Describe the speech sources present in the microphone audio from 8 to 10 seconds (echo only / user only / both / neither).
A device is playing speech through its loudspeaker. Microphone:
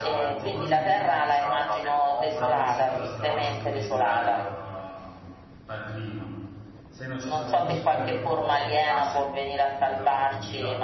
both